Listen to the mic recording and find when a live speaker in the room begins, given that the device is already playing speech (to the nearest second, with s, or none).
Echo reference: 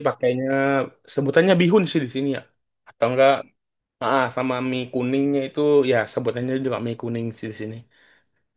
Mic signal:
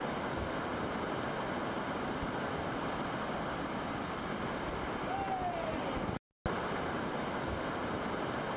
none